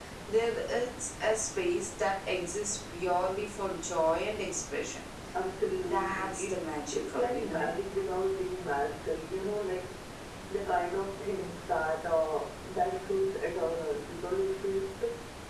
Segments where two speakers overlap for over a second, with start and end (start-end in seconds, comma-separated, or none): 5.7-7.7